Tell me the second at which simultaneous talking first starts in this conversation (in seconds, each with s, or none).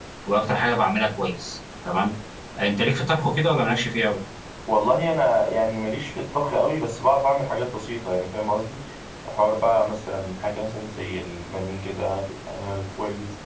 none